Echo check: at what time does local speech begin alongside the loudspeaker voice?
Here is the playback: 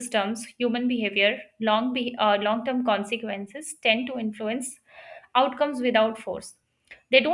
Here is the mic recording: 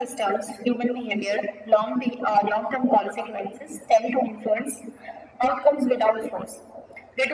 none

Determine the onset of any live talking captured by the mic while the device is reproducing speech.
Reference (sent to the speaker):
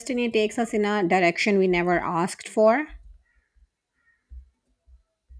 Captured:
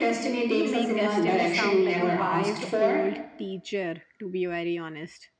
0 s

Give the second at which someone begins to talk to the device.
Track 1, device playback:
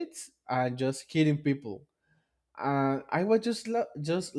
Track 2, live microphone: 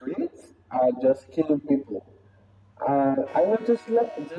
none

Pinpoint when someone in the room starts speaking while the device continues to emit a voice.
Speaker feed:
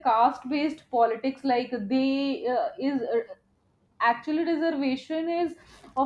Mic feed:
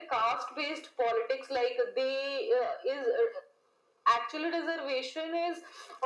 none

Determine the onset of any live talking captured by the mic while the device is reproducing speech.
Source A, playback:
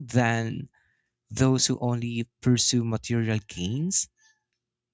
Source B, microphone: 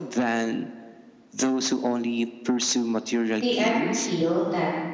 3 s

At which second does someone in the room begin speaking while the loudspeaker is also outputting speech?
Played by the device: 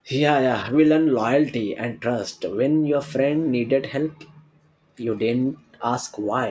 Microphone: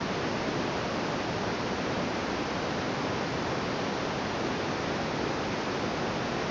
none

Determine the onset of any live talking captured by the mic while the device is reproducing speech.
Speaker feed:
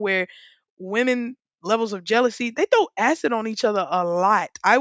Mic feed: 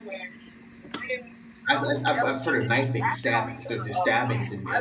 2 s

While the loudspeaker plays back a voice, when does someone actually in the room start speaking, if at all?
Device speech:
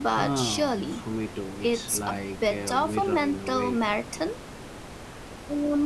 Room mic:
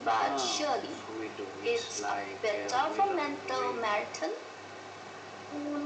none

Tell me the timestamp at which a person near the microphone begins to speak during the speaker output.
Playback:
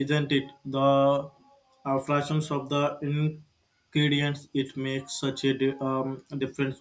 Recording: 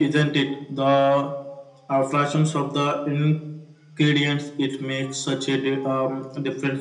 none

